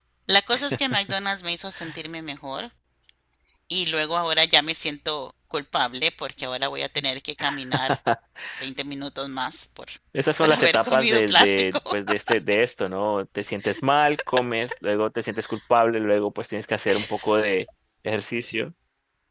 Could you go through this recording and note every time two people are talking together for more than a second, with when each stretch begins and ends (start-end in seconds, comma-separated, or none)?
10.4-11.8